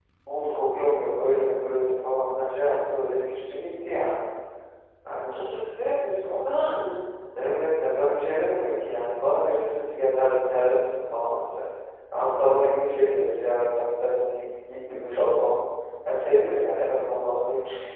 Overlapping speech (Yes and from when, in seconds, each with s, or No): No